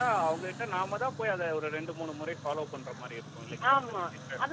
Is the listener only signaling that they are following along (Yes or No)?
No